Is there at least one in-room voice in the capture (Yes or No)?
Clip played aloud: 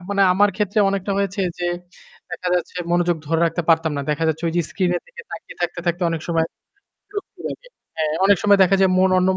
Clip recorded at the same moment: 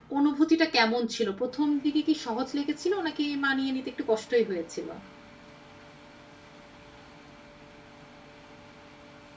Yes